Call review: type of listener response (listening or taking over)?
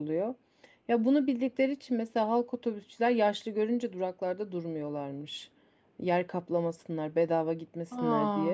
listening